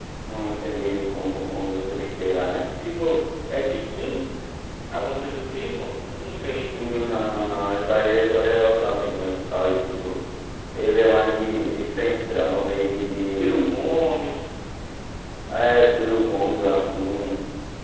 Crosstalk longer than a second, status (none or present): none